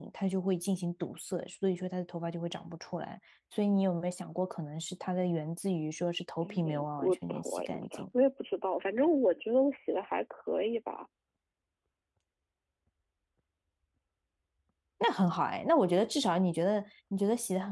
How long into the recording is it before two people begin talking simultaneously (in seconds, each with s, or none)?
6.4 s